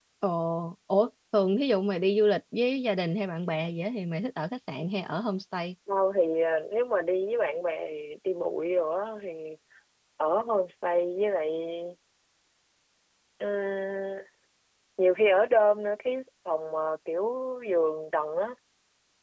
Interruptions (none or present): none